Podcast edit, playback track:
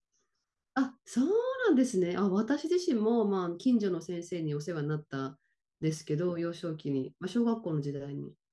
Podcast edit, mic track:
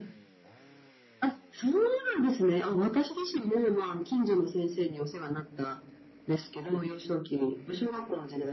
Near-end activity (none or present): none